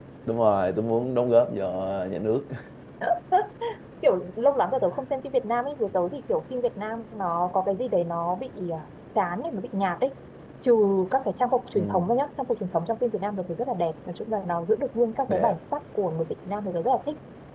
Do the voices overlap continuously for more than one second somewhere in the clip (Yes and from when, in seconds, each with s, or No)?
No